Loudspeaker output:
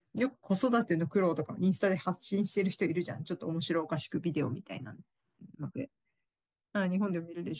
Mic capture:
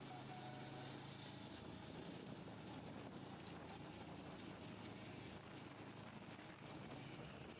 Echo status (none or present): none